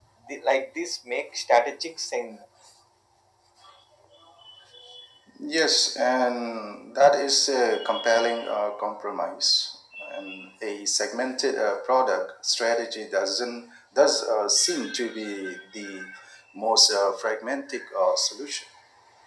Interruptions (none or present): none